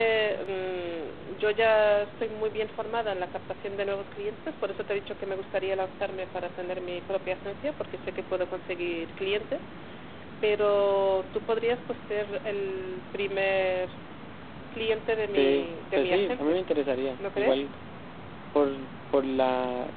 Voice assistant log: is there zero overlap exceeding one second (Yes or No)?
No